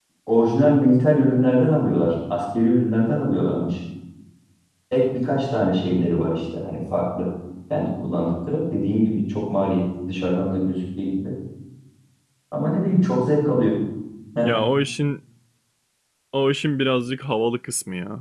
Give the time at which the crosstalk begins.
none

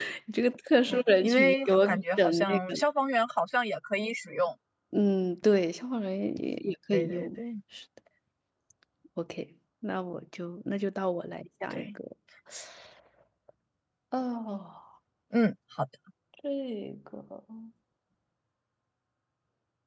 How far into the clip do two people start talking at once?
0.9 s

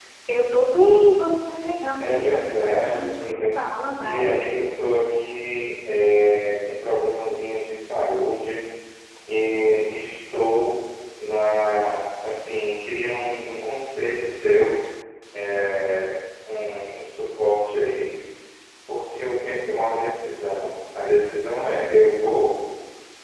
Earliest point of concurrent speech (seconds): 2.0 s

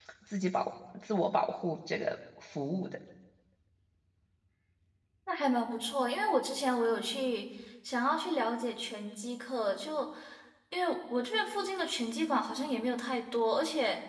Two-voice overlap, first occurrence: none

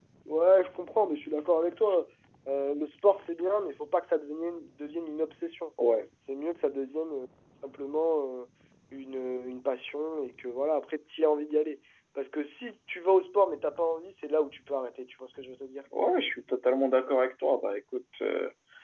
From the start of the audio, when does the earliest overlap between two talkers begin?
none

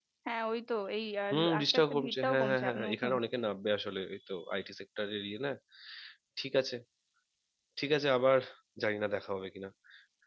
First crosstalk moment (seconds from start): 1.3 s

